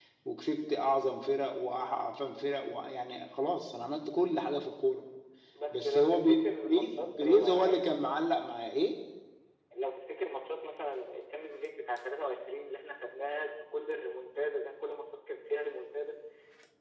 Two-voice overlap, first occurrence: 5.7 s

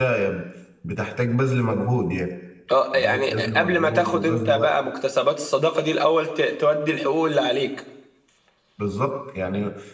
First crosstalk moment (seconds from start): 2.9 s

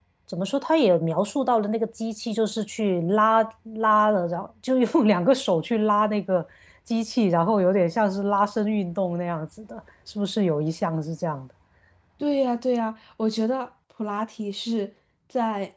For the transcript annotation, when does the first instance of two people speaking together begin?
none

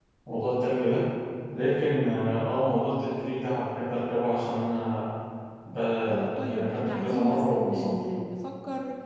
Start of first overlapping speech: 6.2 s

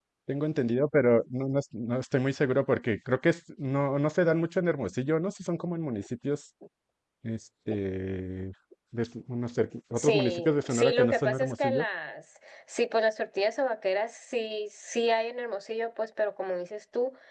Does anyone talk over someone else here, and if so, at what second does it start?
10.0 s

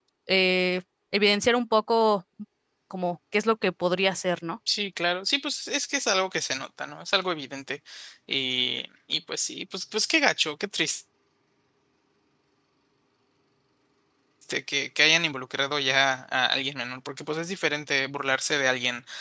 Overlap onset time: none

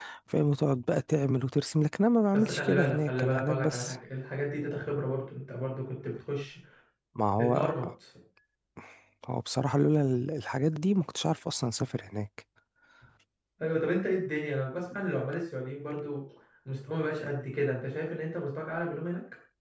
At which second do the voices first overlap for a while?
2.3 s

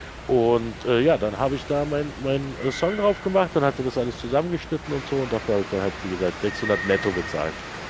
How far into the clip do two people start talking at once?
none

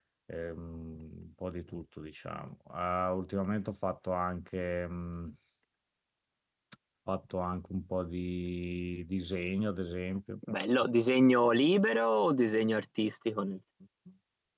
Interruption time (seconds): none

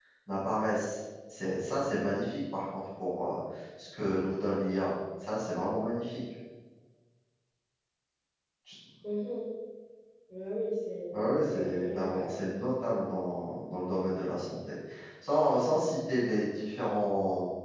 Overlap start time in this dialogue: 11.1 s

